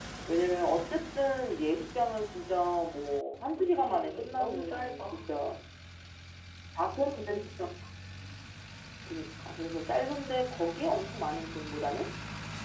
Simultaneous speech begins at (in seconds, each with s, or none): 3.7 s